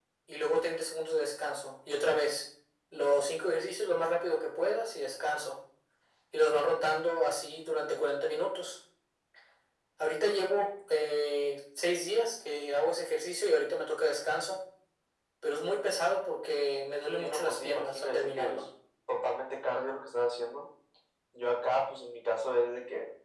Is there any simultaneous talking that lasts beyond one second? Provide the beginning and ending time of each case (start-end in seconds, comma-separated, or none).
17.2-18.6